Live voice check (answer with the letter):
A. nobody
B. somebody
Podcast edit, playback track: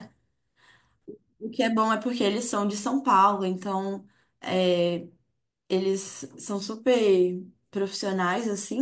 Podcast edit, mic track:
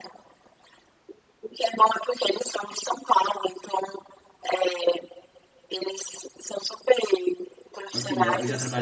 B